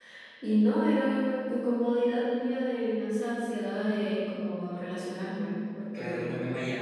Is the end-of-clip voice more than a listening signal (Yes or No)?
Yes